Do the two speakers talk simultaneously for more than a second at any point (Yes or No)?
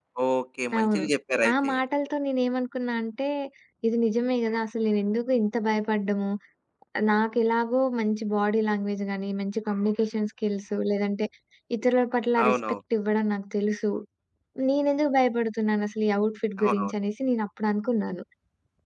No